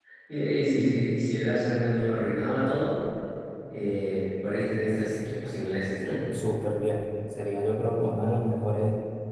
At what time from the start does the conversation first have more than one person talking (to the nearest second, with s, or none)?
none